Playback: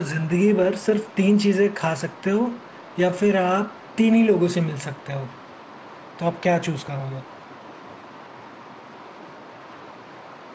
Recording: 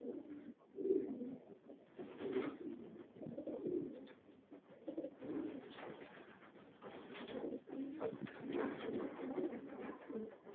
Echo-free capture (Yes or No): Yes